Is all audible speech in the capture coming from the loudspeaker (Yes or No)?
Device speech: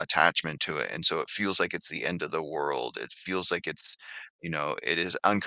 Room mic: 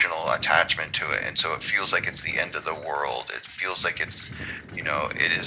Yes